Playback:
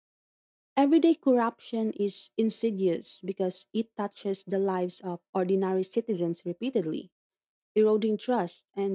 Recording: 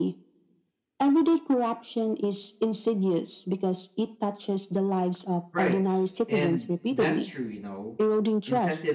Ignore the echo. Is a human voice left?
Yes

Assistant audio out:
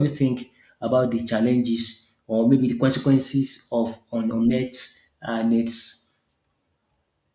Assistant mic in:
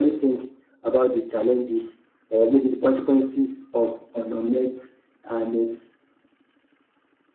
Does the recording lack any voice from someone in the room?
Yes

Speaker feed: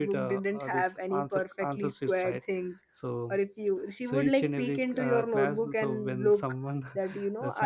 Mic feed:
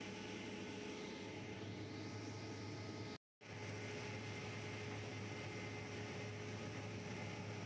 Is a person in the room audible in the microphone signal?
No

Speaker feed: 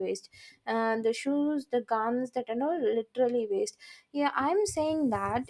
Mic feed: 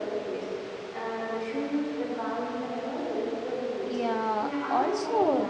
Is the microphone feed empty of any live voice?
No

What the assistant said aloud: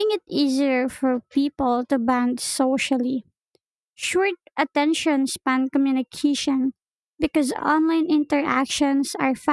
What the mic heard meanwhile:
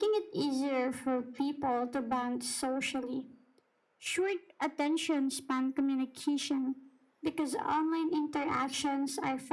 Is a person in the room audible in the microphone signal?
No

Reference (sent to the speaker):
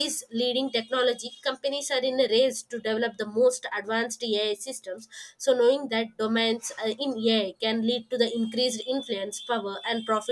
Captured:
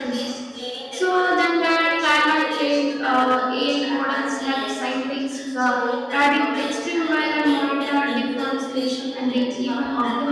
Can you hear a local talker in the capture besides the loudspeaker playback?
Yes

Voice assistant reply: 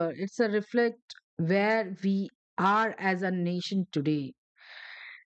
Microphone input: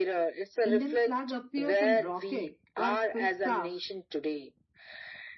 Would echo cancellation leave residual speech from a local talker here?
Yes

